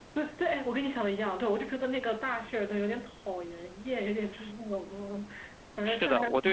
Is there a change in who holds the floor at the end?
Yes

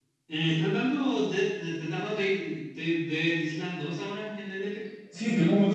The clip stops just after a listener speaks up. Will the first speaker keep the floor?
No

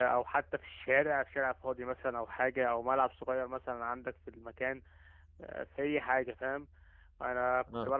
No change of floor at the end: Yes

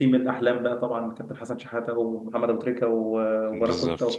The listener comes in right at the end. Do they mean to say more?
No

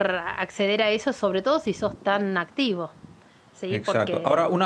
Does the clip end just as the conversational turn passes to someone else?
Yes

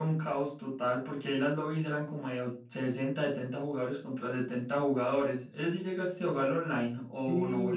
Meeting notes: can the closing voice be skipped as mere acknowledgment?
No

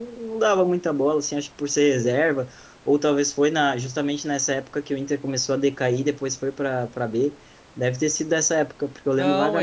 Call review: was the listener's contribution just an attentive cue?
No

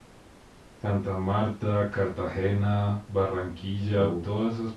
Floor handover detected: No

